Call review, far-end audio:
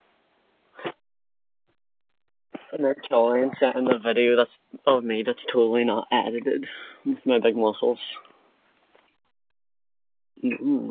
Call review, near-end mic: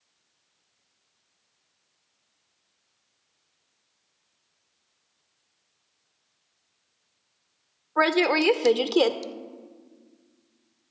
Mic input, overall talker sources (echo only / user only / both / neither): user only